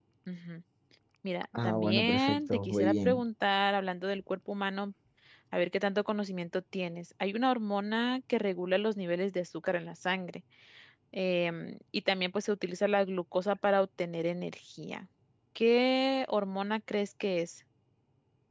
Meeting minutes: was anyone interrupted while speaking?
Yes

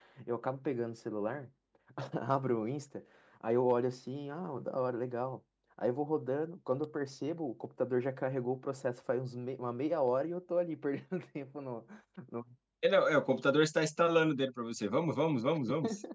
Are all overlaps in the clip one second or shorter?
Yes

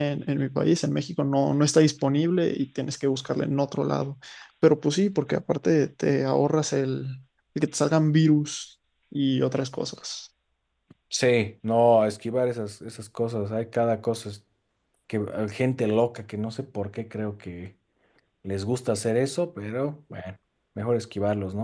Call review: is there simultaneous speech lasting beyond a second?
No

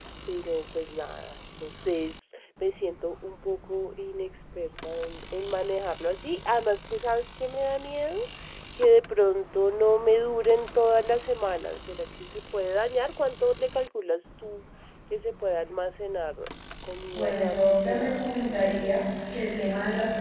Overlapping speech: Yes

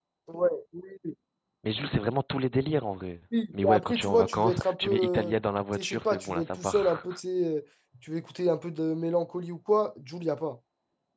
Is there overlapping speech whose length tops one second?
Yes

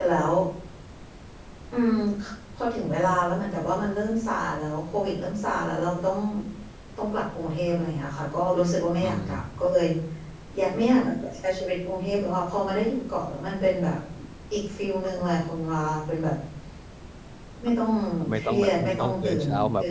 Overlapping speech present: Yes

